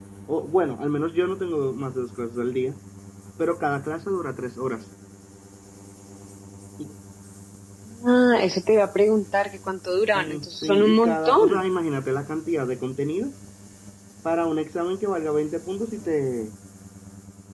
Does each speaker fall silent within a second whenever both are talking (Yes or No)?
No